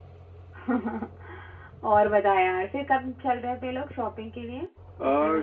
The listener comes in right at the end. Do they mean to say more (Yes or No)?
Yes